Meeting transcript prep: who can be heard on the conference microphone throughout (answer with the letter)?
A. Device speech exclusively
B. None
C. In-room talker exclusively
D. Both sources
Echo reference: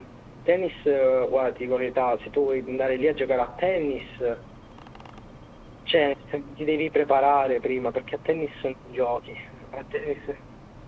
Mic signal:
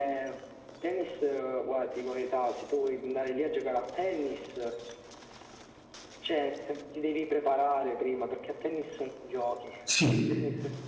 D